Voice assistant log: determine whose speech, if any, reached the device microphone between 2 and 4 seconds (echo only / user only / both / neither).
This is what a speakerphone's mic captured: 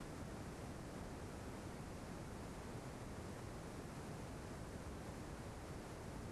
neither